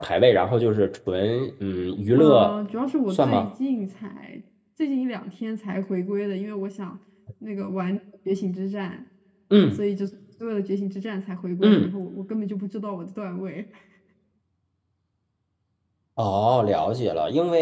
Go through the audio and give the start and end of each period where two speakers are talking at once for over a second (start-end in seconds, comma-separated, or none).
none